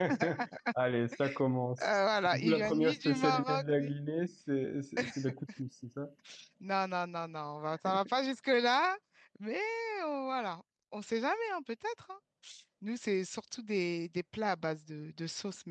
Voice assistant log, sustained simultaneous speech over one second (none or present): present